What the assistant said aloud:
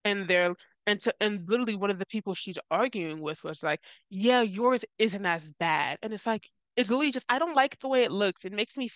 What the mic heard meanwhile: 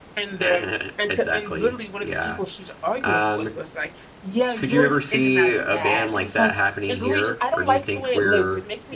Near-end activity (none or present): present